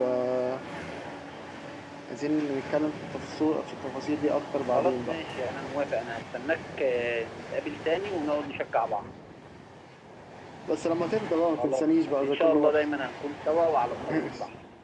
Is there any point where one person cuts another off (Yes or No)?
Yes